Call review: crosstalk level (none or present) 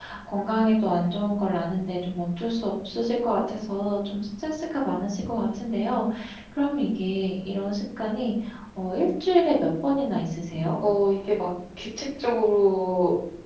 none